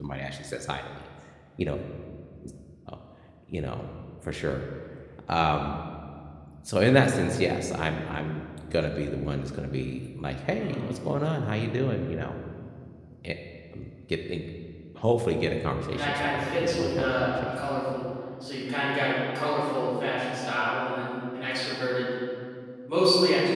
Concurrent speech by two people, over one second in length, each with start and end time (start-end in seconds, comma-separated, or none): 15.9-17.5